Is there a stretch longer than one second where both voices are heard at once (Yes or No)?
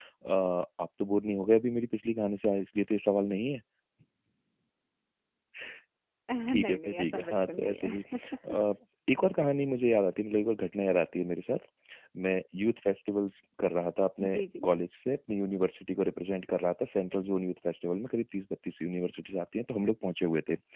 Yes